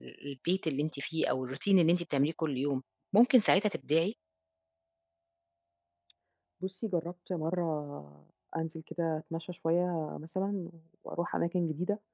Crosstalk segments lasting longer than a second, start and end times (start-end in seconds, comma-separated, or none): none